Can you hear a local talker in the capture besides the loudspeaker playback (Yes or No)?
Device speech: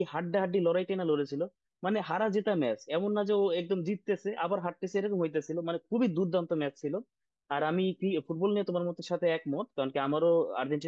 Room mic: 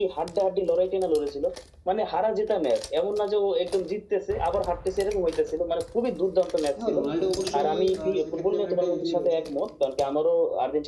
Yes